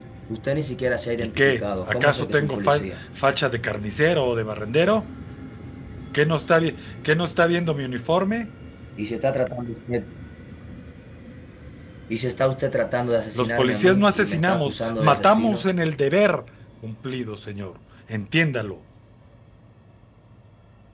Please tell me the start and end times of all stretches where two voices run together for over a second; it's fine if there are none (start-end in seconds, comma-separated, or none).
1.2-2.8, 13.4-15.7